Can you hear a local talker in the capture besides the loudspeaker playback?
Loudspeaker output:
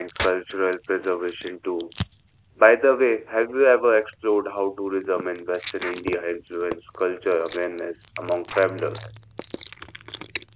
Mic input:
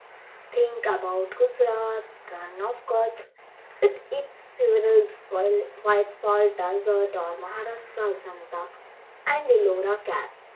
Yes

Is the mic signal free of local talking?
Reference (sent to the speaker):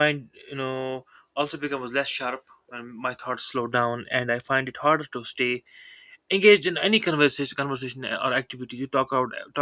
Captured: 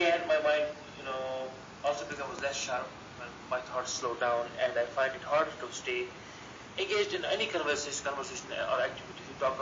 Yes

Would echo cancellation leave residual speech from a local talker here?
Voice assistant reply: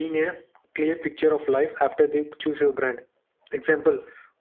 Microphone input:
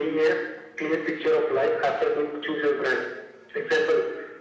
No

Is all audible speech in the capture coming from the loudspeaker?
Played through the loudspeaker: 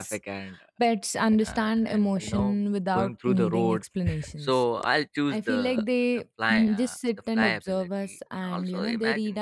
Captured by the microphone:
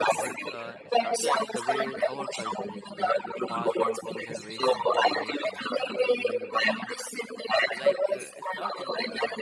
No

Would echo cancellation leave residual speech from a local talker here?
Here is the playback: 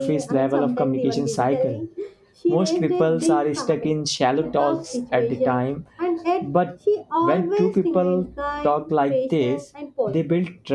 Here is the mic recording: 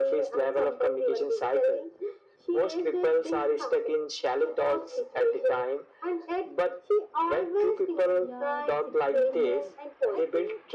Yes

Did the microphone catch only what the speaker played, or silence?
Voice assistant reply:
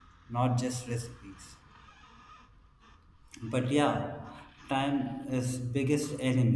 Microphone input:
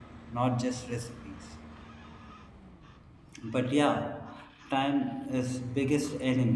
Yes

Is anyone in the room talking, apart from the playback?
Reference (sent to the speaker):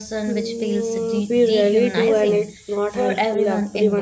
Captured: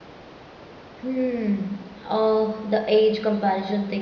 Yes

